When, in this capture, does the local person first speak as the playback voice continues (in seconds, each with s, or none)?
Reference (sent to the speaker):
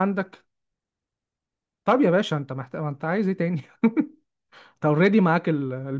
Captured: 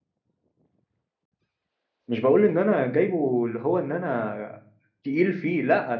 2.1 s